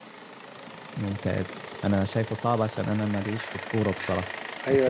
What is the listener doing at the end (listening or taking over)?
taking over